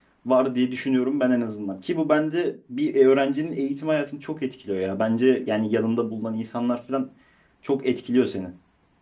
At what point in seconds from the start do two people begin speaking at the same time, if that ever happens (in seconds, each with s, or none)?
none